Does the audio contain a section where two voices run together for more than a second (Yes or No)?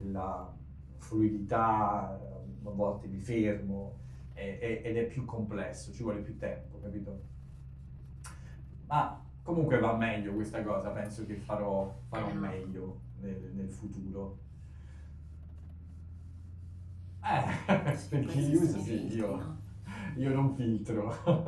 Yes